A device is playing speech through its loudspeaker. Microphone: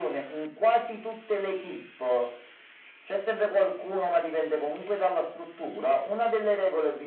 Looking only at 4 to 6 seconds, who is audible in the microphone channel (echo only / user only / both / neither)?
echo only